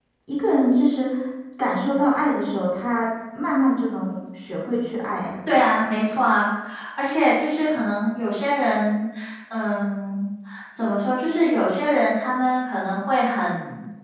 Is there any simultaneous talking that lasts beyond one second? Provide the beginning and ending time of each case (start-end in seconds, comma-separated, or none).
none